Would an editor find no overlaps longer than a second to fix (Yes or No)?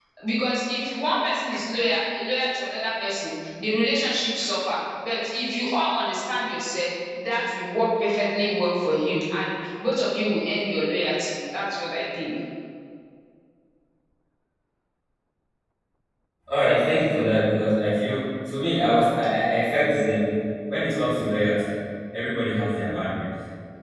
Yes